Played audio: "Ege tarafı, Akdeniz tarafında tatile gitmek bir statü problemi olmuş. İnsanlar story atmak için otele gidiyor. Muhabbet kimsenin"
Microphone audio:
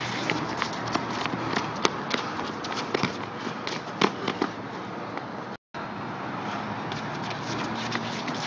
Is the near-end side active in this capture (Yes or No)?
No